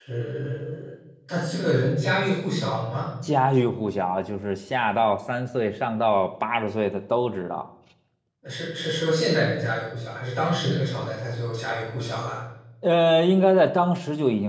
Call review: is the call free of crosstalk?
Yes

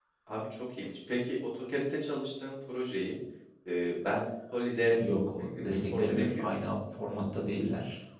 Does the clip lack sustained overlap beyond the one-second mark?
No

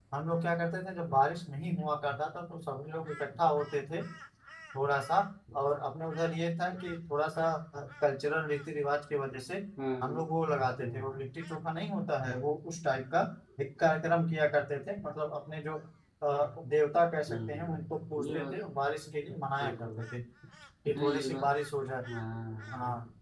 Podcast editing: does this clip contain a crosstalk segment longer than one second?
Yes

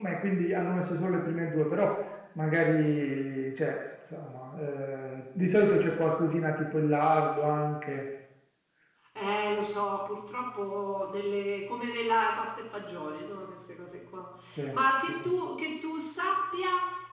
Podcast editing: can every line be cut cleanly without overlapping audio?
Yes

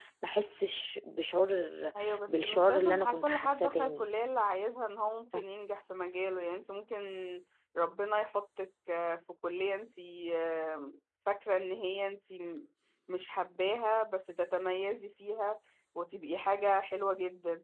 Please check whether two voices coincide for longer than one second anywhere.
Yes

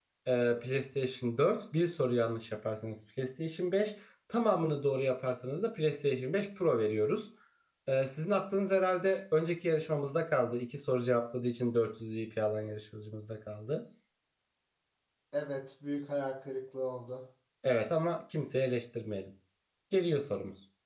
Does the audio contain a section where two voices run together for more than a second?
No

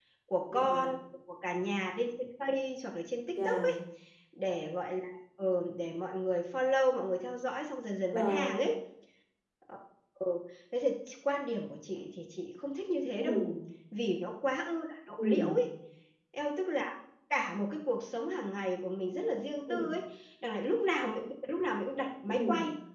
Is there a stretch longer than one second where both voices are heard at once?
No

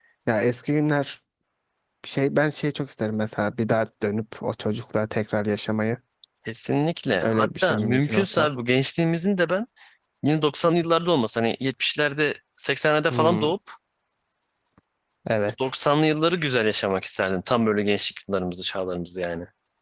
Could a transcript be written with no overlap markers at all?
No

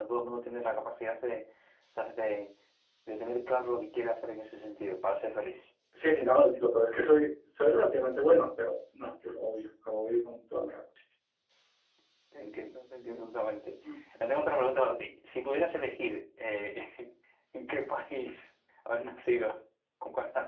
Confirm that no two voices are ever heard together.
Yes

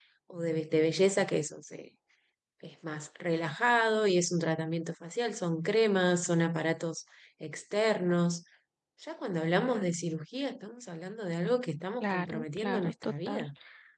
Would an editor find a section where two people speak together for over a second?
Yes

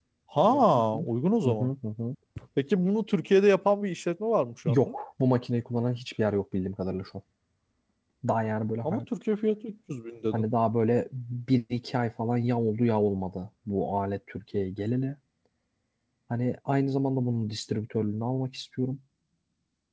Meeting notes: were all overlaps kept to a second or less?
Yes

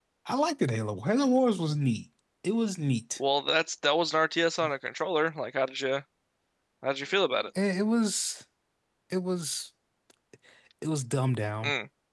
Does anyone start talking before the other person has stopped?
No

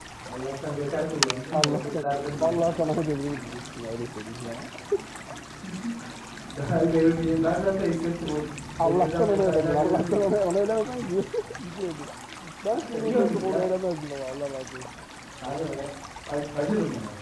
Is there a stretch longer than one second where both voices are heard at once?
Yes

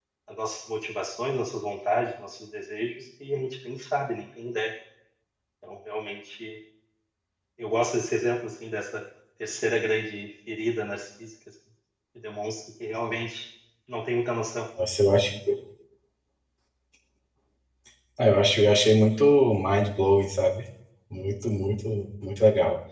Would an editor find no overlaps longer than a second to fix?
Yes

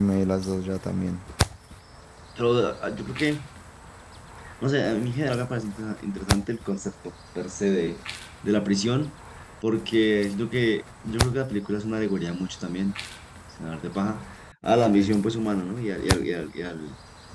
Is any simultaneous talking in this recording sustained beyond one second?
No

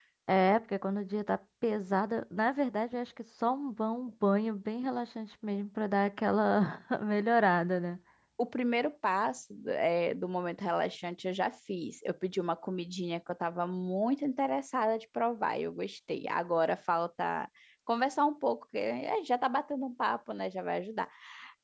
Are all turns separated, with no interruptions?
Yes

